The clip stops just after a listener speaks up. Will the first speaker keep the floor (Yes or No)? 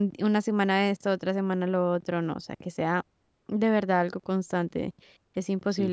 No